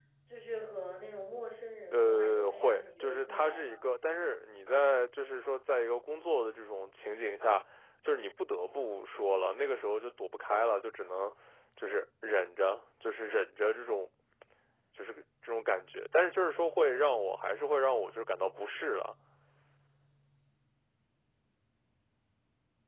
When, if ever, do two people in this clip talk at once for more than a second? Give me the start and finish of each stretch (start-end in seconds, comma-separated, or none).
1.9-3.8